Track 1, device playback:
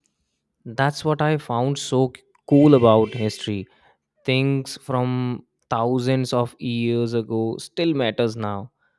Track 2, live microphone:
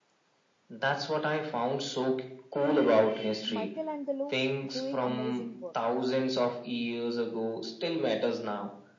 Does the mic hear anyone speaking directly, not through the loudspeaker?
Yes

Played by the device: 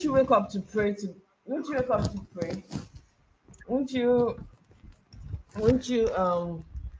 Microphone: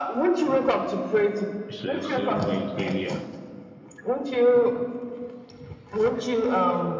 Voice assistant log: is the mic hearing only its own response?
No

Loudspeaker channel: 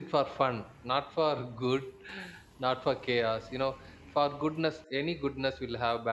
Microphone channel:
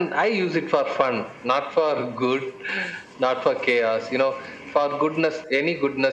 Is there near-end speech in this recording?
No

